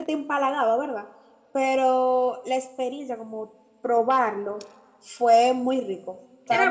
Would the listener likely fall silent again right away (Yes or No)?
No